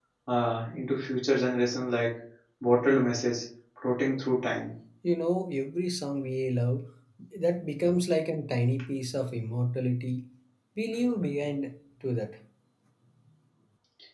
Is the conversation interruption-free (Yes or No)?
Yes